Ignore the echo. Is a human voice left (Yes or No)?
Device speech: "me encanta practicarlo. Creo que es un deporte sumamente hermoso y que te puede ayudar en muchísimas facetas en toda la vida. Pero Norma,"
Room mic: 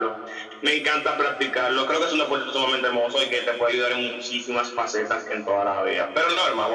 No